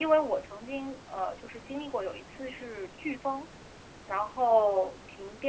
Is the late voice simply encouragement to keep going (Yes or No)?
Yes